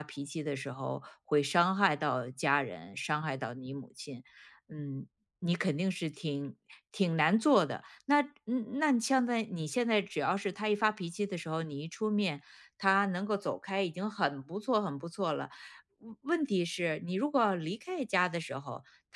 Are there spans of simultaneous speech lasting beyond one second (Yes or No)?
No